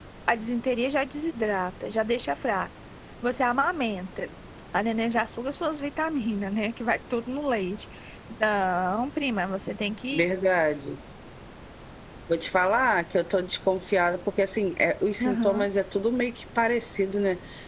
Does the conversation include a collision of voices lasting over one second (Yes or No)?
No